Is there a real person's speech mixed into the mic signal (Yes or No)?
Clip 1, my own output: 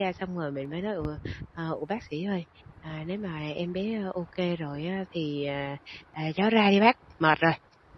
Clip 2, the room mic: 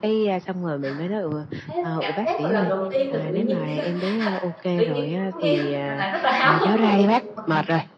Yes